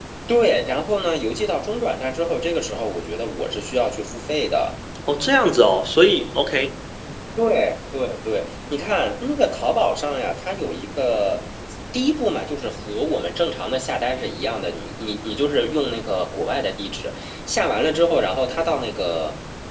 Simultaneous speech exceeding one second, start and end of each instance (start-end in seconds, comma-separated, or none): none